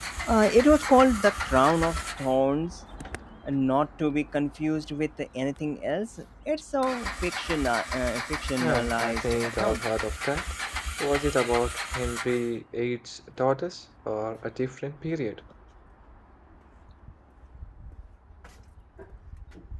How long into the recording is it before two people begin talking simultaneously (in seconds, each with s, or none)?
8.6 s